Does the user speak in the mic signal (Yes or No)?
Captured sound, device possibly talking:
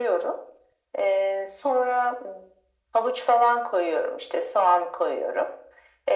No